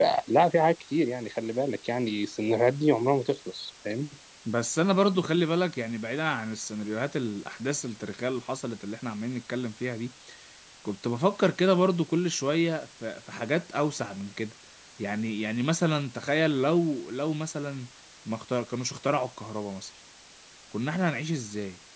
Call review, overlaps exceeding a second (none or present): none